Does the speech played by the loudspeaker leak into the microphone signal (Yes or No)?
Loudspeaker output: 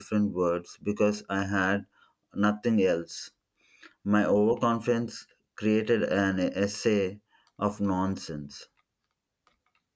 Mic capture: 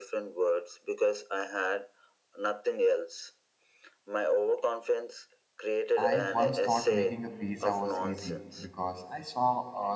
Yes